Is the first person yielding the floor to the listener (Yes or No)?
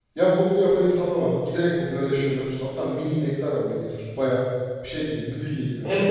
Yes